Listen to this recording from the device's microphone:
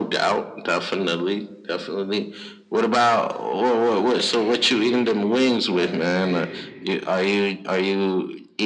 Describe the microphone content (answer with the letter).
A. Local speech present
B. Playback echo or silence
A